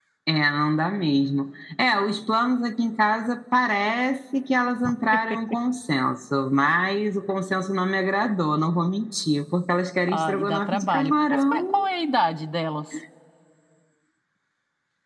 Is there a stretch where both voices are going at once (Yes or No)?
Yes